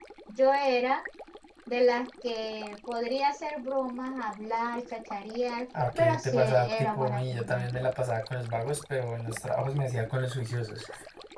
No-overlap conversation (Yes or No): No